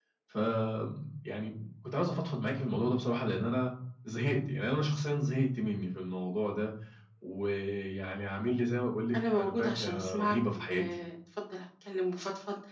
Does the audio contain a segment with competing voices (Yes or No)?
Yes